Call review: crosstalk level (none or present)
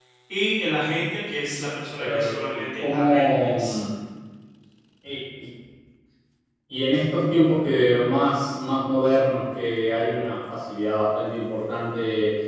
present